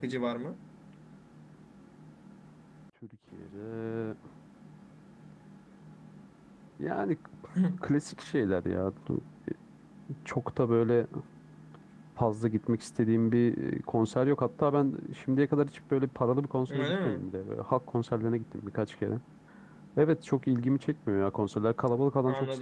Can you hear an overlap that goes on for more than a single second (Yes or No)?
No